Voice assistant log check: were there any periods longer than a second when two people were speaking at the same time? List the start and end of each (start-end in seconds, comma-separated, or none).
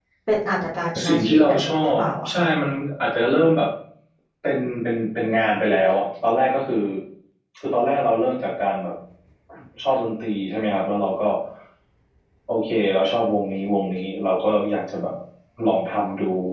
1.1-2.5